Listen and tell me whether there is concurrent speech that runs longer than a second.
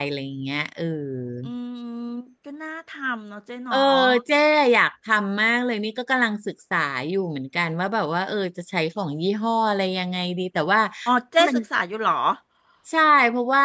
No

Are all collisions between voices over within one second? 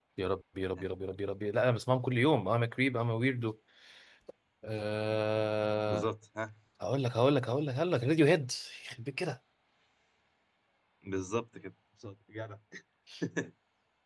Yes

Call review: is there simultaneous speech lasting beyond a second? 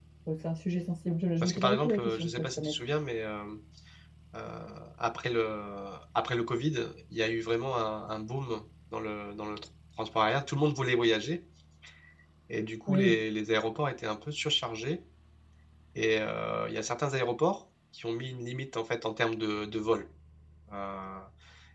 Yes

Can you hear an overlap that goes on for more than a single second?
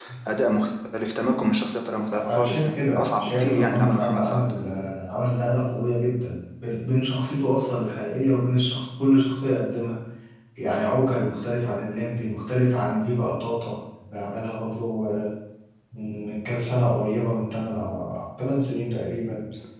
Yes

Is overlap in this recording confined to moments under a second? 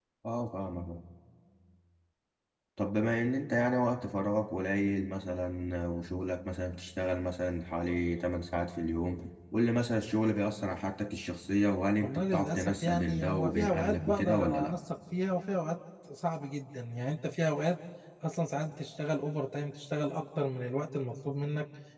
No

